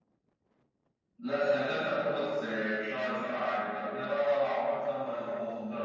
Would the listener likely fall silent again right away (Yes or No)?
No